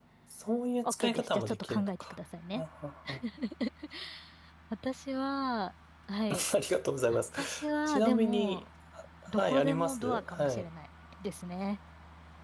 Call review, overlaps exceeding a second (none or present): present